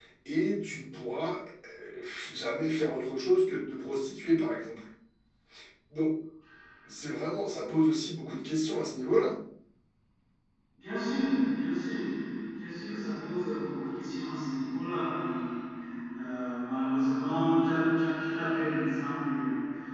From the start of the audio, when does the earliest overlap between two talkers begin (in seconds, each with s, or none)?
none